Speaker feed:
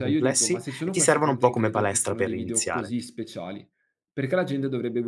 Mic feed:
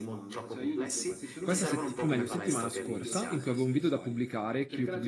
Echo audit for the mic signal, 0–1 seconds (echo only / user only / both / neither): echo only